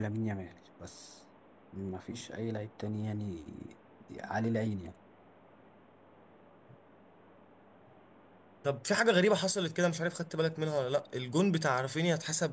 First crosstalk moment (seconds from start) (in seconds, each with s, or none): none